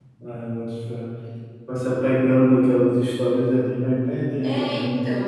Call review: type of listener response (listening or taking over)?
taking over